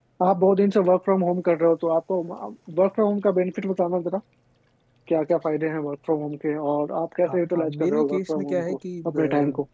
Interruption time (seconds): 7 s

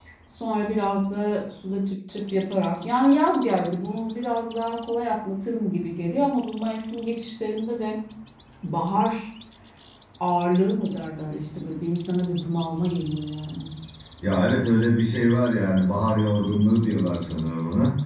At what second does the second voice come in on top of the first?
none

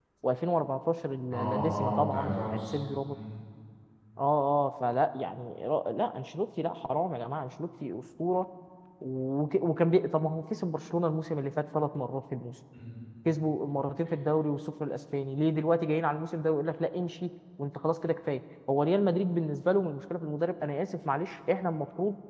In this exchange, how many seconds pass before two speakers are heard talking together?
1 s

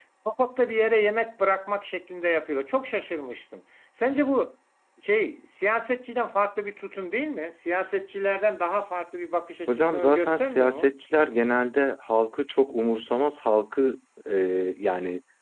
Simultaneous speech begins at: 10 s

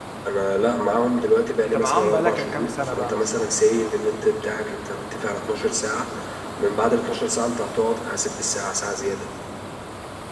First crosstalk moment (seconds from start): 2 s

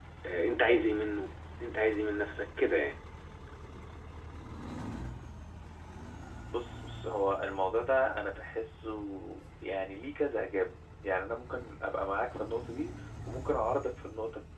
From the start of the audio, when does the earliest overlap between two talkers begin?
none

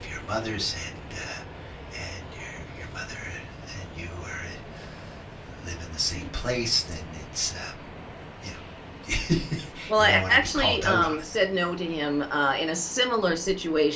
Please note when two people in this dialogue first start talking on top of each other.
10 s

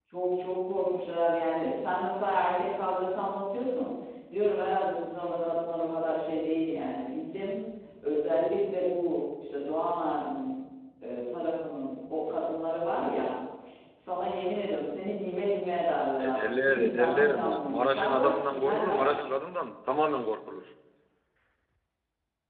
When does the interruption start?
16 s

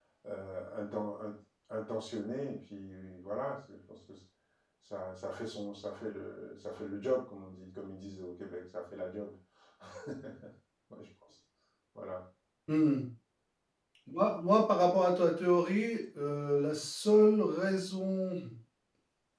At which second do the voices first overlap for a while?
none

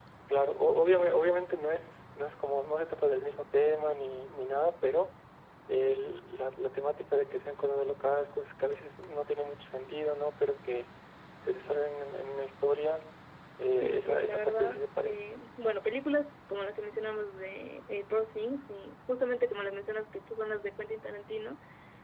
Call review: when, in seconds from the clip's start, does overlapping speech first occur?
14 s

